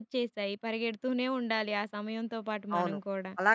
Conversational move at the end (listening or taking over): taking over